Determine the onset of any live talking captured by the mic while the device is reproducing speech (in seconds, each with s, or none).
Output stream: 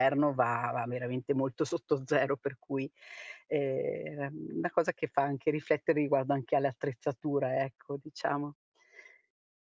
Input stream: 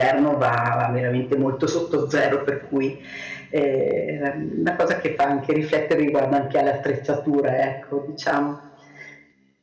none